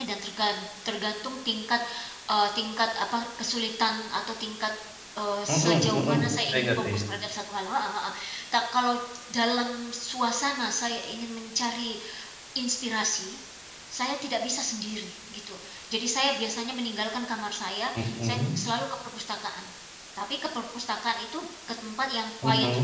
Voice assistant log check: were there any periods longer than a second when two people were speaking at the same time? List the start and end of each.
5.5-7.0

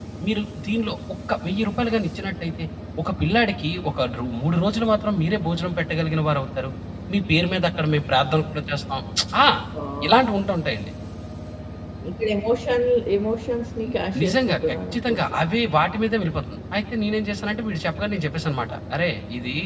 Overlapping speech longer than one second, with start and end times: 13.8-15.3

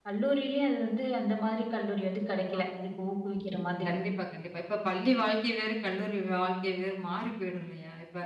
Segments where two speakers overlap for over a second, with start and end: none

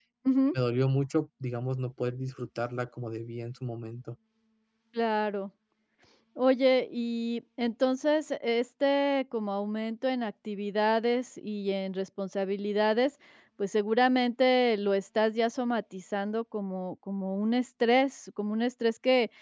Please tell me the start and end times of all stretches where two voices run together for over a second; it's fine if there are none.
none

